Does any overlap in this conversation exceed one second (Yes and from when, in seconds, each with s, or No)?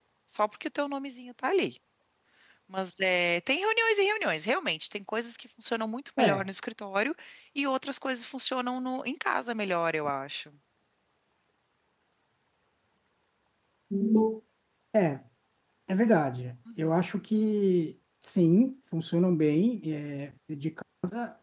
No